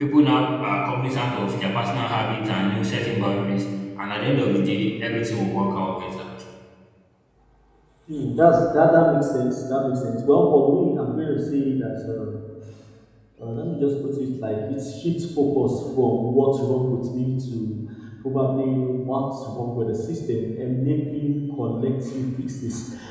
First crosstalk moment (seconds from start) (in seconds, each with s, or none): none